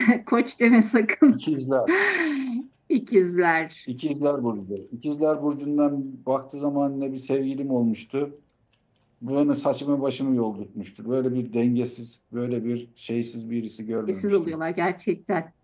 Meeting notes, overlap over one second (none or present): none